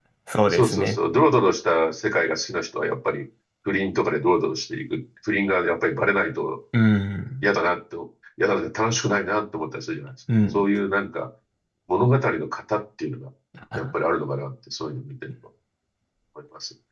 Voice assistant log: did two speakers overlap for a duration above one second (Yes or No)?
No